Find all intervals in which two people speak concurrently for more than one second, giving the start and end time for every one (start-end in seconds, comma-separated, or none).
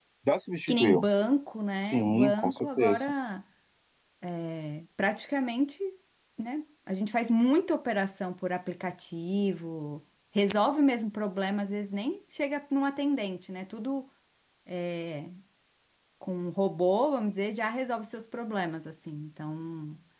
1.9-3.1